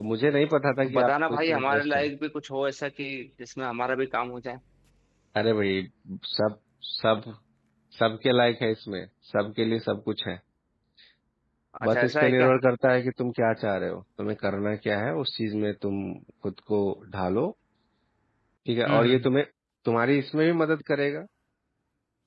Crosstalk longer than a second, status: present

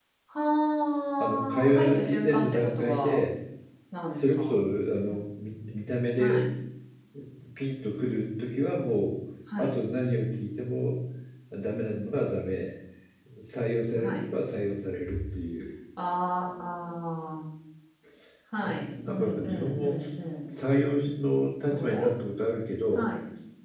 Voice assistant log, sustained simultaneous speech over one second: present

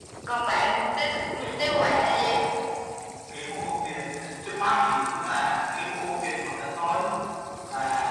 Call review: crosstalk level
present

